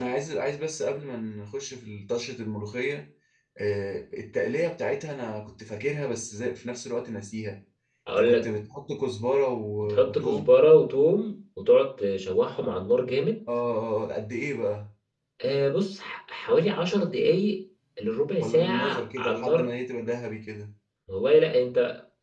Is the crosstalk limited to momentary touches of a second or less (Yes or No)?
No